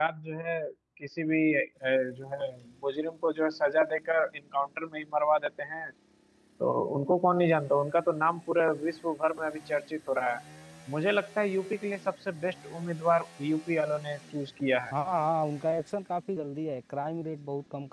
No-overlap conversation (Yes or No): Yes